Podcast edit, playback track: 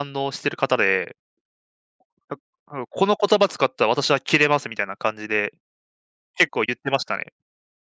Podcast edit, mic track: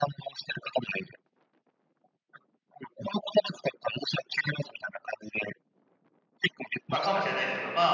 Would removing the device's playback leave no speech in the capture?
No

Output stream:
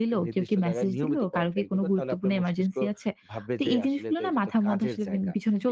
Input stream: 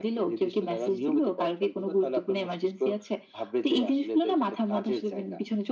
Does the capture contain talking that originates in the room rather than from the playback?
No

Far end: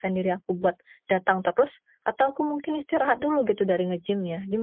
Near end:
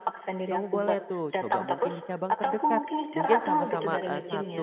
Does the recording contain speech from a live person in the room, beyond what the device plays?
Yes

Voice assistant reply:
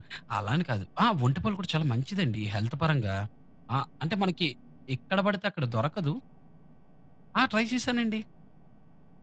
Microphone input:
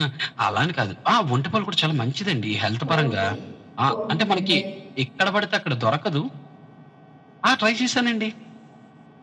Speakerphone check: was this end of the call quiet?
No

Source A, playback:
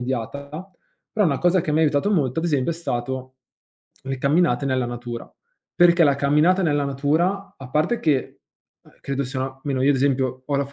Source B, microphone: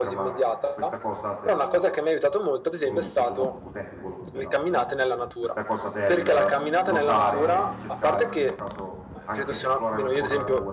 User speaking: Yes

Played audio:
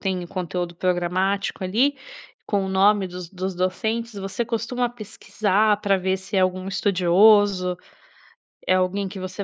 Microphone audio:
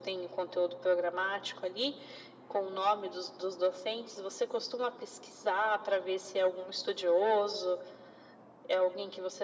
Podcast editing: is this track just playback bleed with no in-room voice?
Yes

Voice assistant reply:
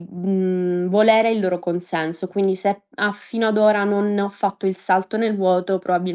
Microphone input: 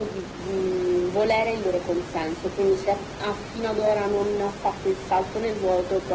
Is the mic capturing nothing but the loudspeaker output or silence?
Yes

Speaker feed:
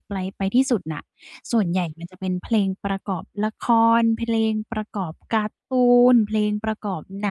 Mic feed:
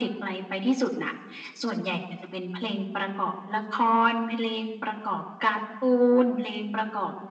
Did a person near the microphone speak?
No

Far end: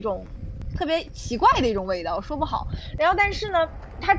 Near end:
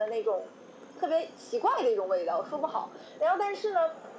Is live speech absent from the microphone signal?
Yes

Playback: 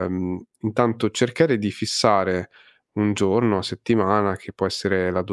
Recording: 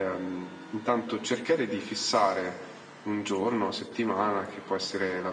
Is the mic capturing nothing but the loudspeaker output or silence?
Yes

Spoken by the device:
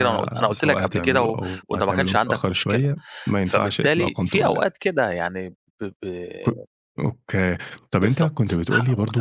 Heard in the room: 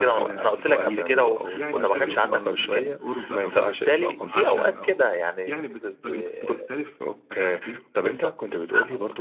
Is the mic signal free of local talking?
No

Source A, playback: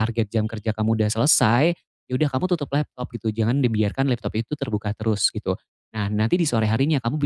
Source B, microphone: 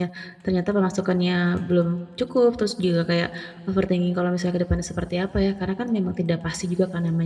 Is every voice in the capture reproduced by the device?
No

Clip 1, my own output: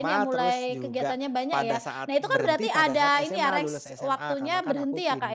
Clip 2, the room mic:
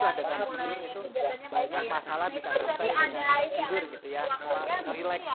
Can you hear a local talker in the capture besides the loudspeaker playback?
Yes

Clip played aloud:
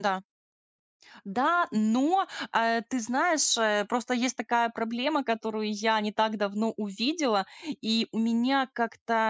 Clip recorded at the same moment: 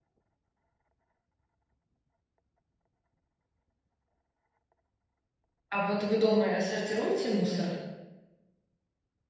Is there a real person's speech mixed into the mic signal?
Yes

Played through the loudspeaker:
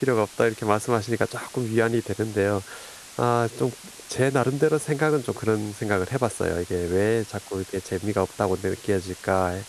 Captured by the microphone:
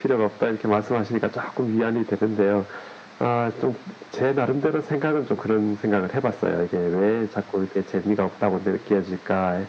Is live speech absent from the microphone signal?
Yes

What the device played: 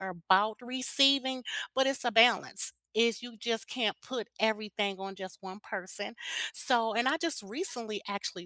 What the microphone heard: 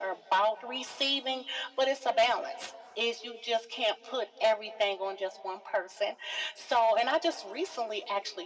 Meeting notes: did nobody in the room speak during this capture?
Yes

